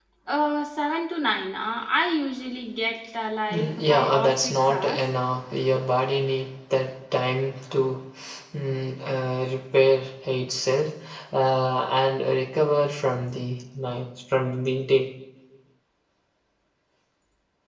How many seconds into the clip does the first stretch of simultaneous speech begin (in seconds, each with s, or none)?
3.5 s